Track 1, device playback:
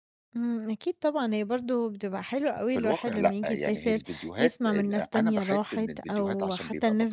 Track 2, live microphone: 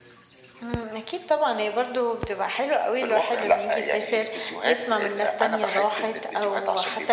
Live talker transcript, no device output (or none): none